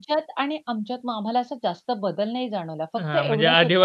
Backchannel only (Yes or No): No